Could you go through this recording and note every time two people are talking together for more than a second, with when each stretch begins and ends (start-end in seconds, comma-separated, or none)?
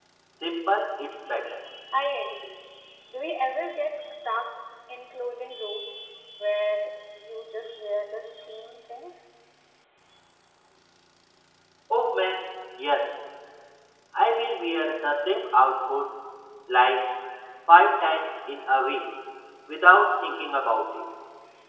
none